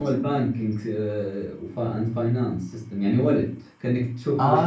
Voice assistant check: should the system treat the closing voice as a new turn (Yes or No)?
Yes